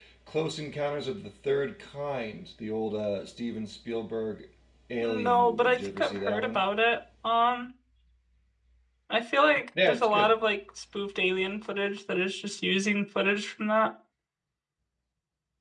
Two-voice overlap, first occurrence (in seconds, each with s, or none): 5.0 s